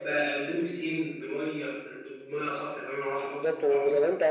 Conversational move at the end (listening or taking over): taking over